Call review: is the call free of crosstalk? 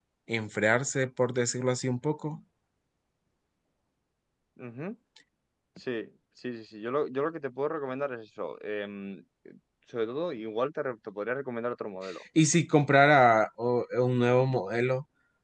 Yes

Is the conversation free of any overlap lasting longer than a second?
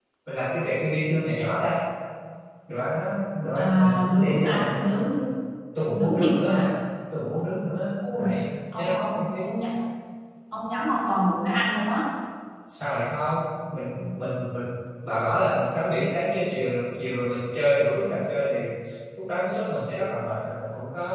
No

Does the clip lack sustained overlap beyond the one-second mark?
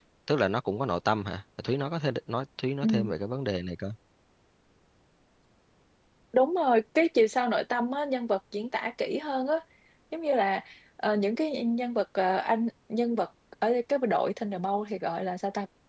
Yes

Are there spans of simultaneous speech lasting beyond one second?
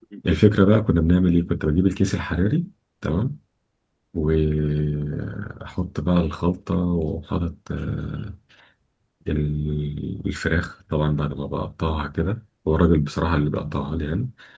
No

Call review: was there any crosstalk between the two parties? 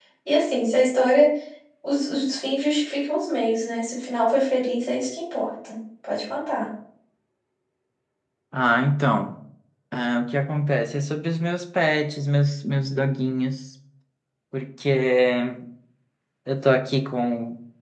No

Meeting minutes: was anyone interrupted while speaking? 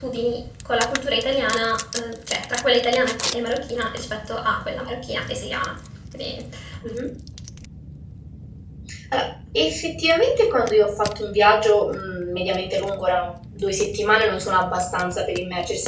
No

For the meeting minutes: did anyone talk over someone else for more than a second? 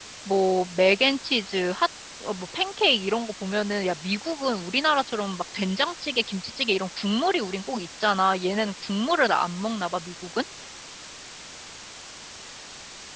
No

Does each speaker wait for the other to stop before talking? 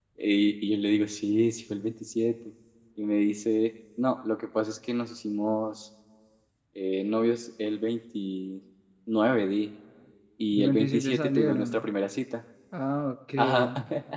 No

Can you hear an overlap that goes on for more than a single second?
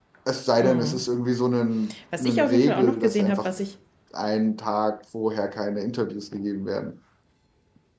Yes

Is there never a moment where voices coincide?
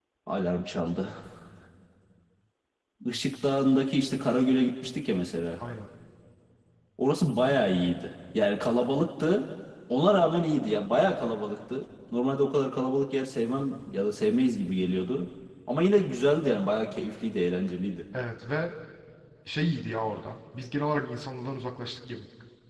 Yes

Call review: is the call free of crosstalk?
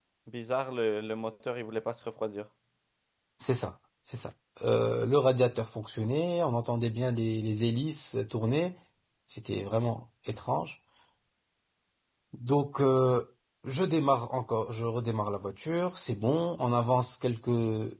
Yes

